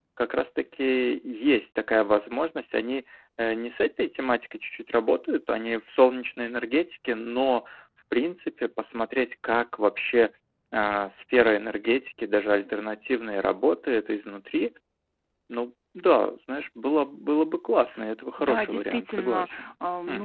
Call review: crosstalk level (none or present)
present